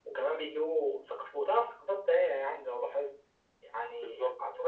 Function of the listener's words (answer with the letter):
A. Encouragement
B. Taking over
A